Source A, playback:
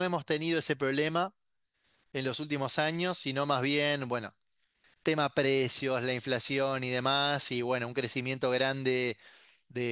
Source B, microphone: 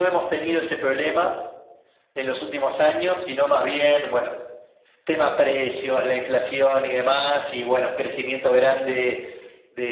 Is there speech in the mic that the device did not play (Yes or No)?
No